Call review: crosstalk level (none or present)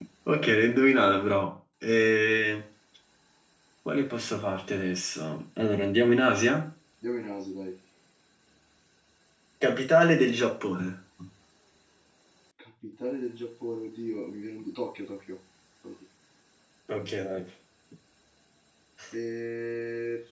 none